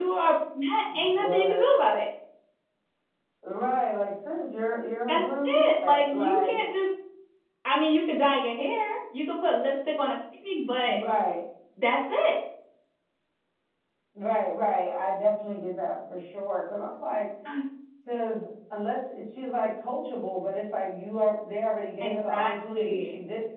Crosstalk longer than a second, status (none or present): present